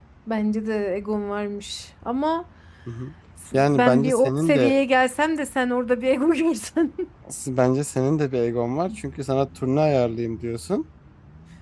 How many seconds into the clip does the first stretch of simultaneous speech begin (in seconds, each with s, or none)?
3.5 s